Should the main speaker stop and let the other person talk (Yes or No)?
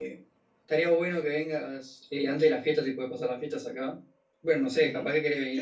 Yes